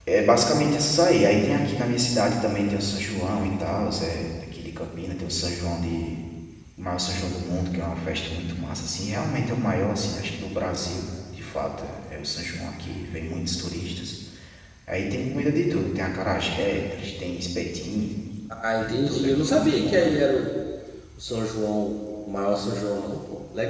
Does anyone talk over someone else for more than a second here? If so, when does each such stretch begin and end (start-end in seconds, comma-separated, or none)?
18.8-20.2